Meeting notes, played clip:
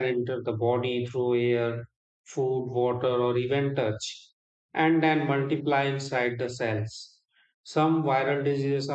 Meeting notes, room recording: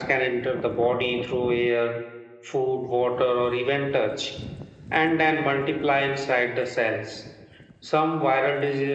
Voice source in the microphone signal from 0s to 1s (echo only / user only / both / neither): echo only